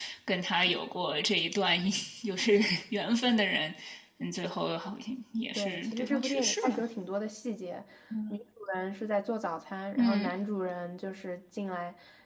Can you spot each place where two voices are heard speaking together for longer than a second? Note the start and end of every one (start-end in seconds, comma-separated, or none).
5.6-6.8